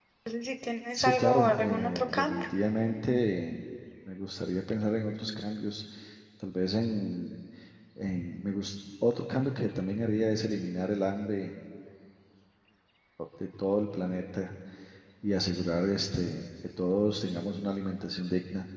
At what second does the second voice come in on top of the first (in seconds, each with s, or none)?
1.0 s